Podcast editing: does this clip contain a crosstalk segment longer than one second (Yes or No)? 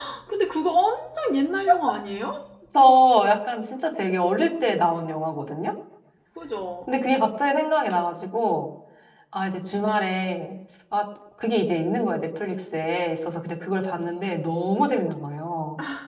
No